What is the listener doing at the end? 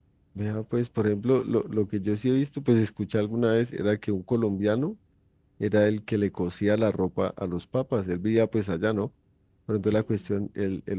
listening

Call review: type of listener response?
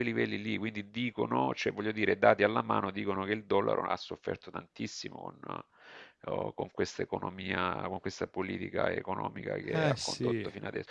listening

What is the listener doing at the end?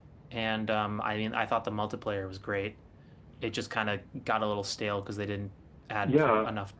taking over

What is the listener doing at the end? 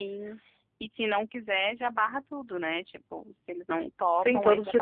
taking over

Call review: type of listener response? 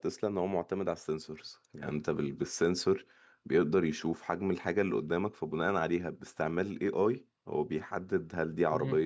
listening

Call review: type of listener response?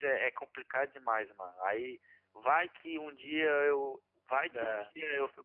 listening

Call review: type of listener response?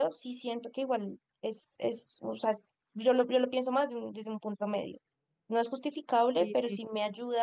listening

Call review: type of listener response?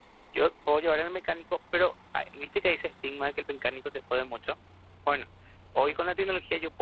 listening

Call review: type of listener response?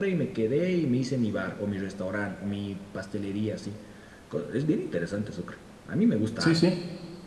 taking over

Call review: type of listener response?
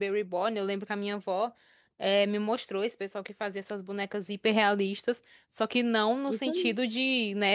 listening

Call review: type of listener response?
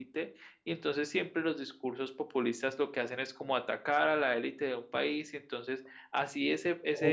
taking over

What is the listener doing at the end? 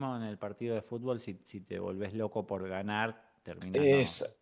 taking over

